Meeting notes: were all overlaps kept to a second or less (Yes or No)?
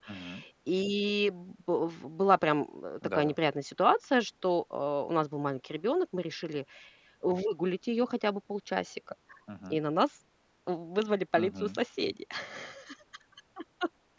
Yes